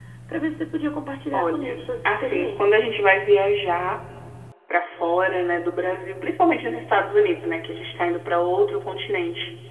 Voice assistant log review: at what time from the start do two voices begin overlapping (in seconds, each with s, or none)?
1.3 s